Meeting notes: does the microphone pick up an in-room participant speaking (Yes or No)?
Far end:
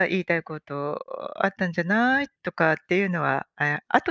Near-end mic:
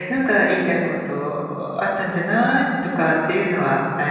No